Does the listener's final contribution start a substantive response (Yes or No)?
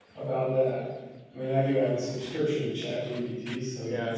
Yes